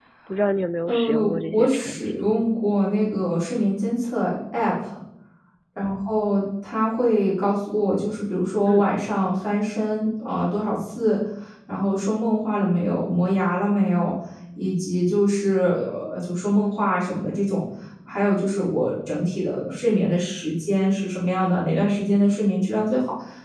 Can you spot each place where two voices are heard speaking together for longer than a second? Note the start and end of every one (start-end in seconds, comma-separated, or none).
0.9-2.2